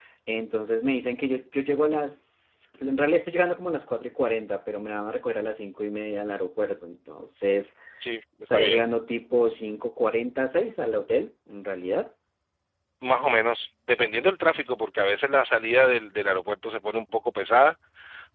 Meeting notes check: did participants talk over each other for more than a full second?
No

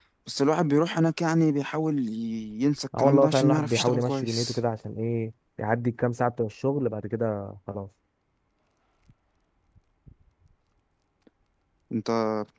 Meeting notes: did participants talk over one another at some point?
Yes, from 2.9 s

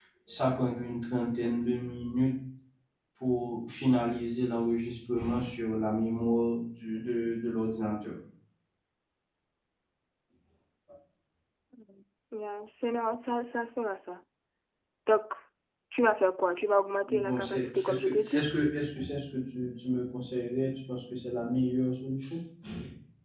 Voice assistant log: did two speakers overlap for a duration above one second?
Yes, from 17.1 s

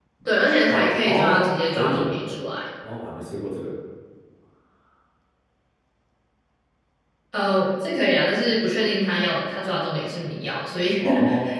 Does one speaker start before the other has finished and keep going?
Yes, from 0.7 s

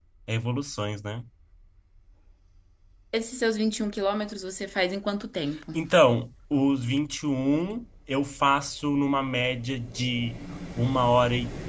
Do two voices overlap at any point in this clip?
No

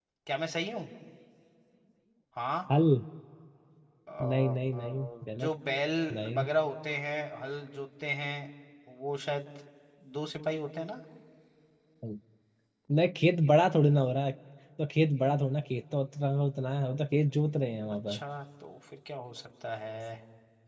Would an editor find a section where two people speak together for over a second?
Yes, from 4.2 s

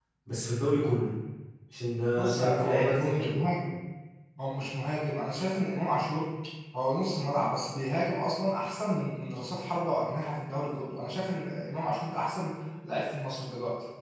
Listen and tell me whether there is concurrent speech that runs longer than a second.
Yes, from 2.2 s

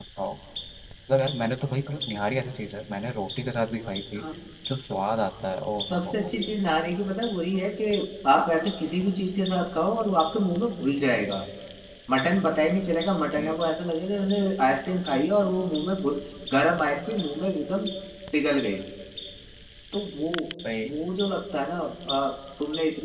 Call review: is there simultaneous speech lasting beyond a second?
No

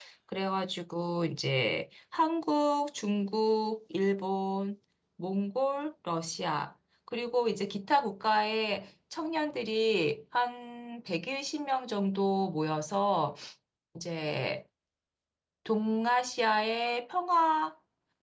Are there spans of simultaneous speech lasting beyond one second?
No

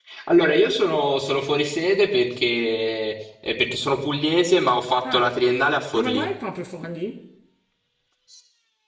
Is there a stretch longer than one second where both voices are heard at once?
No

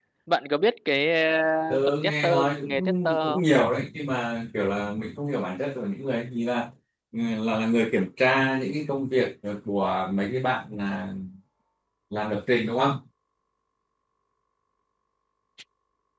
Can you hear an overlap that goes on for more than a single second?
Yes, from 1.9 s

